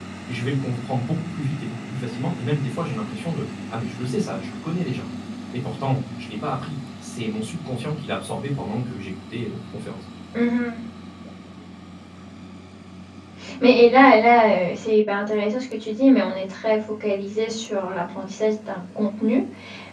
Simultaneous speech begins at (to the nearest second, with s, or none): none